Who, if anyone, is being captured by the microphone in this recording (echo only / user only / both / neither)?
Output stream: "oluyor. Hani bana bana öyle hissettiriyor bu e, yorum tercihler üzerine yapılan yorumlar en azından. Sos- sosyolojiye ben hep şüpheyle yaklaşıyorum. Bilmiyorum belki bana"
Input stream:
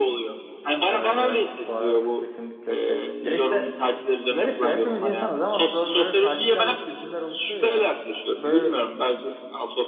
both